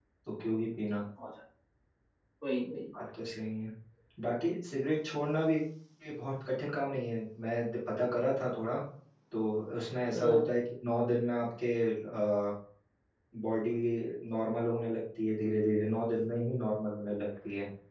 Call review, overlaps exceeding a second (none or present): none